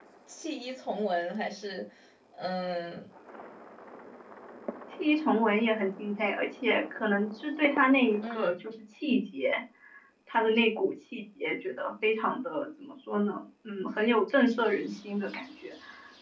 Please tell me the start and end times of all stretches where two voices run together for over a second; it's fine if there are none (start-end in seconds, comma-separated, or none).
none